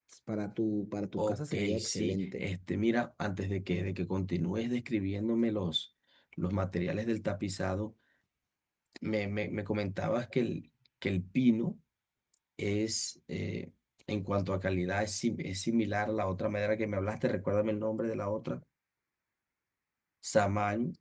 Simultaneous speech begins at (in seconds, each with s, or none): 1.2 s